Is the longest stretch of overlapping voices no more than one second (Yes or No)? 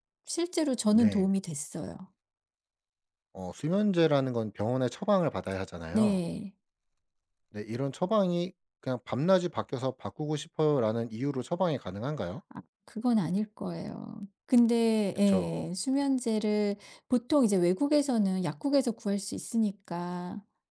Yes